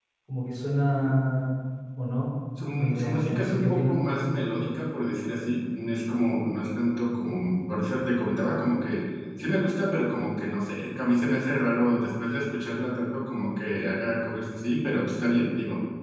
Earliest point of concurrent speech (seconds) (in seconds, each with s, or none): 2.7 s